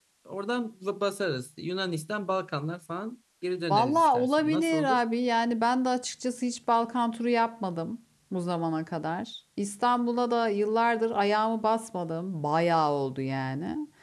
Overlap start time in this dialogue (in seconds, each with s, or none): 3.7 s